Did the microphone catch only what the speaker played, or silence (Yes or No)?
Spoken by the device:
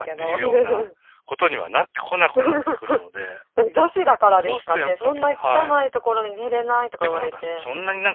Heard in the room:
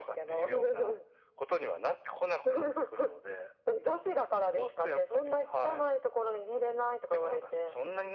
Yes